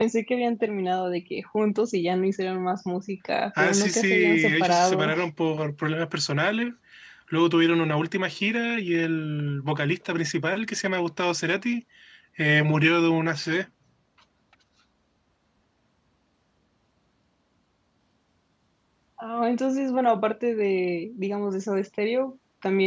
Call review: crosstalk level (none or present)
present